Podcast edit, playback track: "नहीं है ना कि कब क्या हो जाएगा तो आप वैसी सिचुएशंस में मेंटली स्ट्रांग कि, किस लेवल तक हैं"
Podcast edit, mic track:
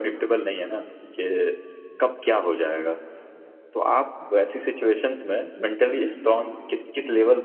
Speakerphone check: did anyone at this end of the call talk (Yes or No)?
No